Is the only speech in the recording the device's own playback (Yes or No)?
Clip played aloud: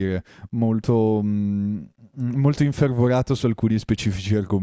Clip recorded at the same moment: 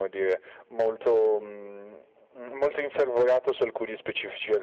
Yes